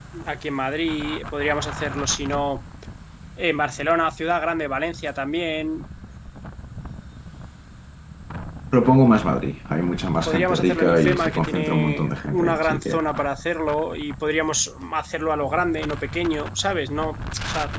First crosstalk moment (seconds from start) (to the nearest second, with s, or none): 10 s